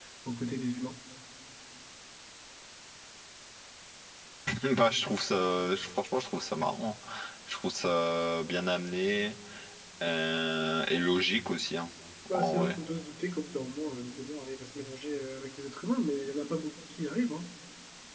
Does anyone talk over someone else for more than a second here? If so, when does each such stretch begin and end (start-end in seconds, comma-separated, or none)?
none